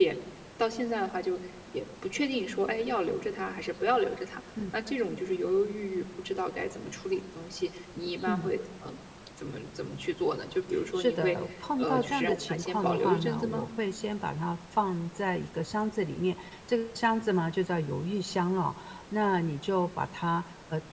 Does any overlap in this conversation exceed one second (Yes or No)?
Yes